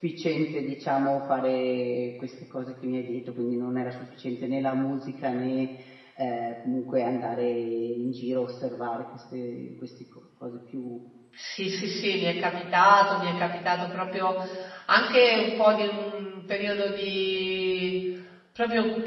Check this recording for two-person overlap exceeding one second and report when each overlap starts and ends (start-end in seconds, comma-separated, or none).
none